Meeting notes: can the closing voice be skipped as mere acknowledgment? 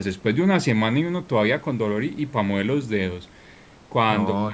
Yes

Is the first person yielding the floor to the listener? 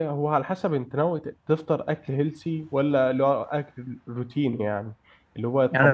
Yes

